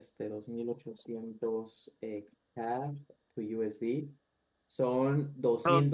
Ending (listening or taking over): listening